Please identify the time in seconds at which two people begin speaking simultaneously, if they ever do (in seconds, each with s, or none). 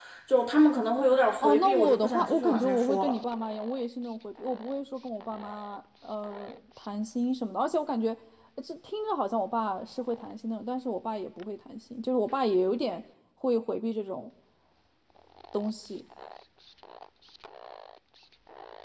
1.4 s